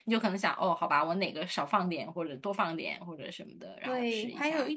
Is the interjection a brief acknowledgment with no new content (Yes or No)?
No